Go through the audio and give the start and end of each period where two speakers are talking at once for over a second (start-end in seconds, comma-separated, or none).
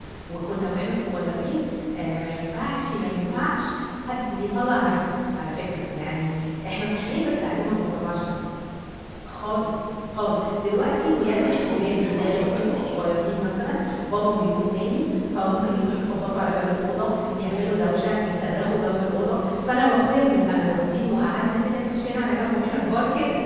11.2-12.9